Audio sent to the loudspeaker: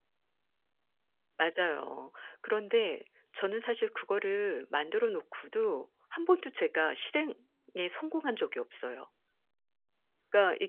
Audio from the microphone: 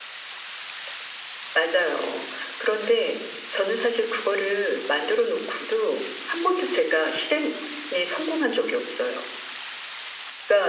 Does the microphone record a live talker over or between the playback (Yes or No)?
No